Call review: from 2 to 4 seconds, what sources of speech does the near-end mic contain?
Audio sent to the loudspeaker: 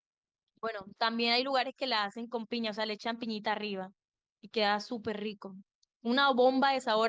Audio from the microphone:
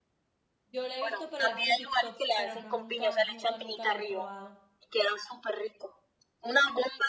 both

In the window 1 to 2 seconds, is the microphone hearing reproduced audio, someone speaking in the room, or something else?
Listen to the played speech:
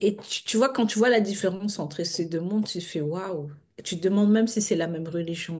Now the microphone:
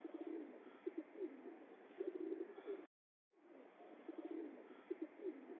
neither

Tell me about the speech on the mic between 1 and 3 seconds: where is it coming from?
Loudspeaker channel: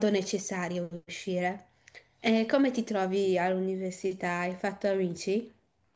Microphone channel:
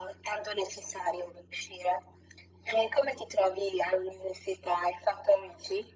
echo only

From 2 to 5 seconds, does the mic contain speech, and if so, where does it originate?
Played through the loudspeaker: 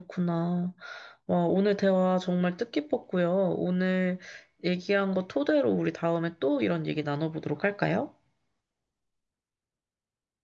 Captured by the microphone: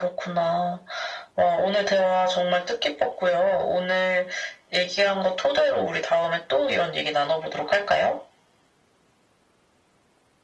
echo only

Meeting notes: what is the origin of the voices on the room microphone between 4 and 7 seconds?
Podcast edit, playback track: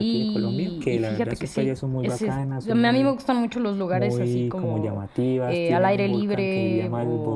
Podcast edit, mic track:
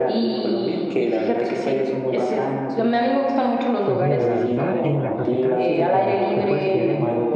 both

